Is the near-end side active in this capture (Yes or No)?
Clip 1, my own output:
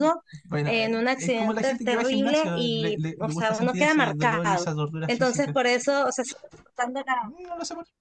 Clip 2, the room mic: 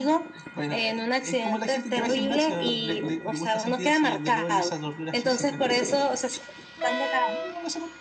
No